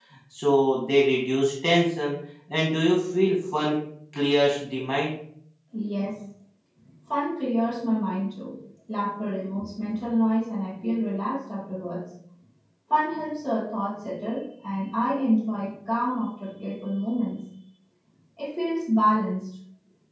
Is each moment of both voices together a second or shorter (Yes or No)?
Yes